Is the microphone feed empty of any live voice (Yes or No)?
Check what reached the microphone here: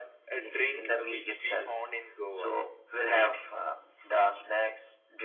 Yes